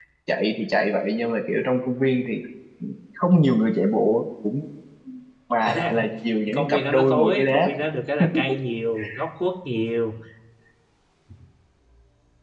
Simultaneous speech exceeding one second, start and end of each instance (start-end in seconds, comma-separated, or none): 6.5-7.7